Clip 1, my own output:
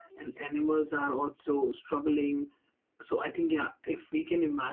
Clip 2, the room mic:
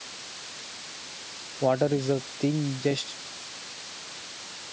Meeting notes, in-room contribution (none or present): present